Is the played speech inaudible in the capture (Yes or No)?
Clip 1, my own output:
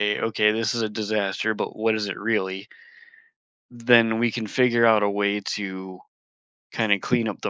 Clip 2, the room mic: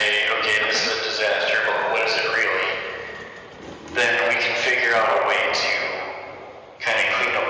No